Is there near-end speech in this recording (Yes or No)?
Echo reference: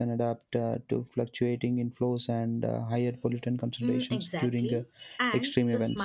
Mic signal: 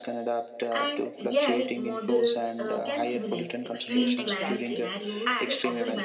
Yes